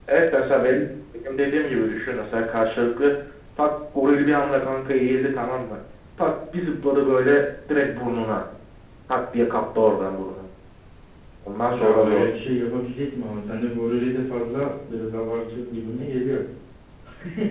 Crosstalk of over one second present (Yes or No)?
No